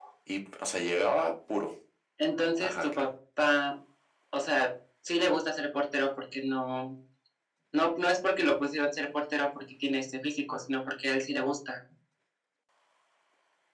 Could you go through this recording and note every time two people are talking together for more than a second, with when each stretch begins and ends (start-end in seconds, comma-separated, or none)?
none